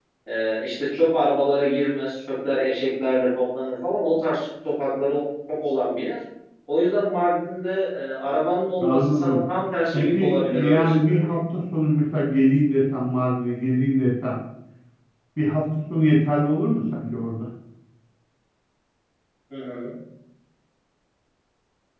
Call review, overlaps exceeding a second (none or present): present